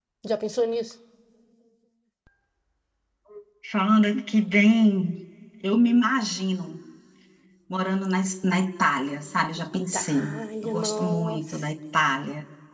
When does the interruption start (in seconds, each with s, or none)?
9.6 s